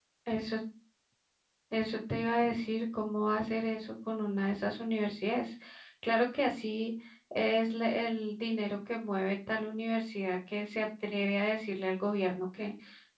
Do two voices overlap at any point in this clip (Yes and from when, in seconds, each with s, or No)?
No